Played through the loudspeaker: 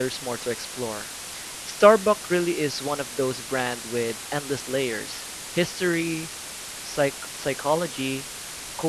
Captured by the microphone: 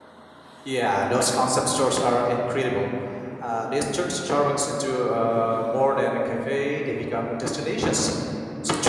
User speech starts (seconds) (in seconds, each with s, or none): 0.6 s